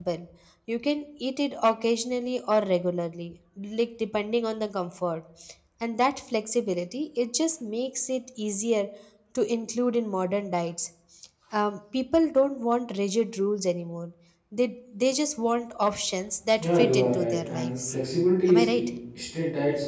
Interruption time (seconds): 17 s

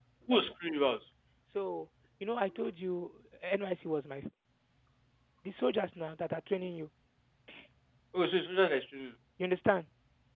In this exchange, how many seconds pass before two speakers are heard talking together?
none

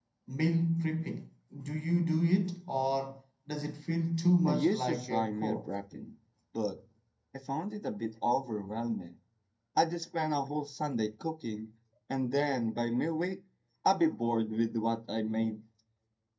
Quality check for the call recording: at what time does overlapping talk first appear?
4 s

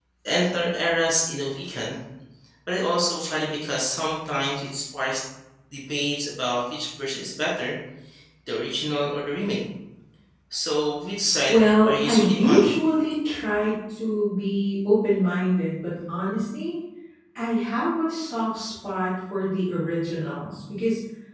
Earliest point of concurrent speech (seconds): 11 s

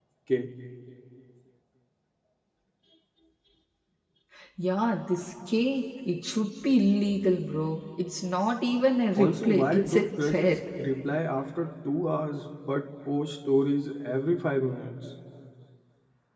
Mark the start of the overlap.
9 s

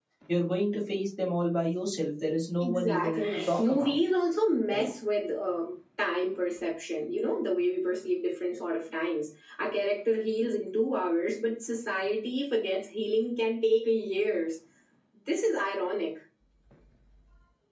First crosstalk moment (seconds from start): 3 s

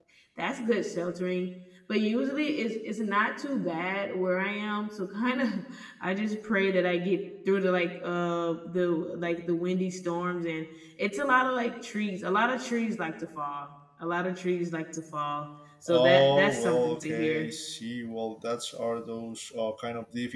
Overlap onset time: 16 s

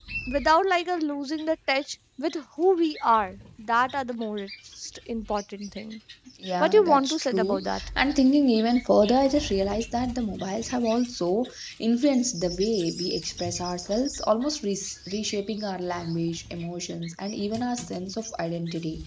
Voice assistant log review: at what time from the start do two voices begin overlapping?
7 s

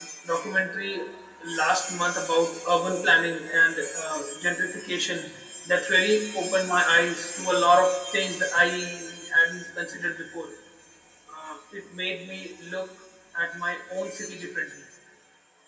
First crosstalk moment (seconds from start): none

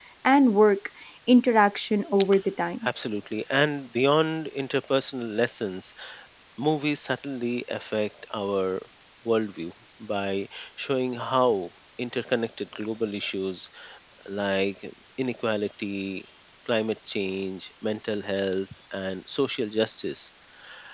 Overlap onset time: none

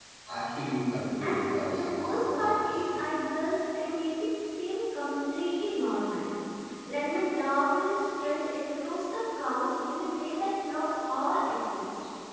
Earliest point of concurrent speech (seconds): 1 s

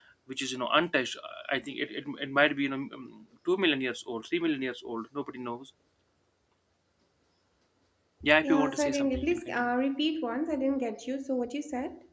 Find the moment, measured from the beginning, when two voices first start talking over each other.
8 s

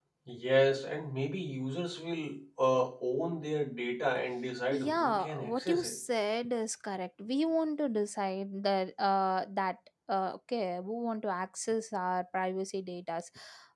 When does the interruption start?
5 s

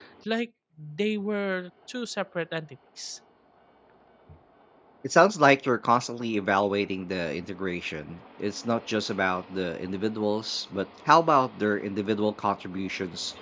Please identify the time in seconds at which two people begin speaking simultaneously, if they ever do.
none

